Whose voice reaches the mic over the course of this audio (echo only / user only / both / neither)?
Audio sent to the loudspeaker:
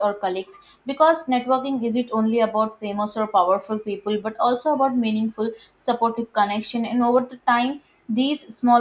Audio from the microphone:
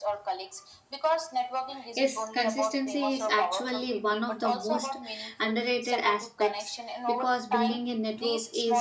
both